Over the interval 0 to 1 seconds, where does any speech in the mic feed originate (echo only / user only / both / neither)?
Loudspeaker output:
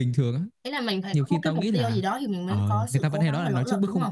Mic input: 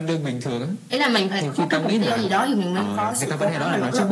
echo only